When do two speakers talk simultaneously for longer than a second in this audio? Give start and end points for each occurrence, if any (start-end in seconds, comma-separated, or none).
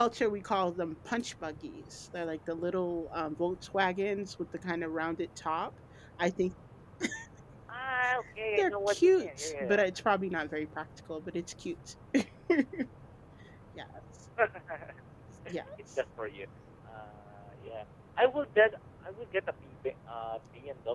8.6-9.8